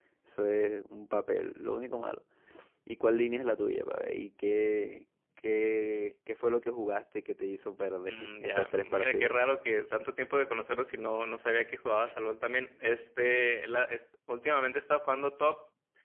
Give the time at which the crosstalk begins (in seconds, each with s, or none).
8.1 s